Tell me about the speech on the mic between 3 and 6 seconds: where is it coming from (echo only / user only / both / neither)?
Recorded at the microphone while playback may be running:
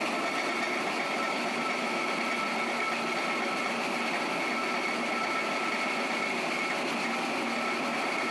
neither